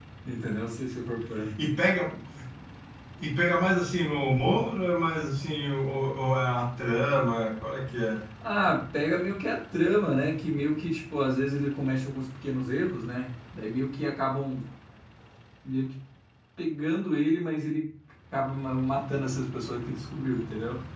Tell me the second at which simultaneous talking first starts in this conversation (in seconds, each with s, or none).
none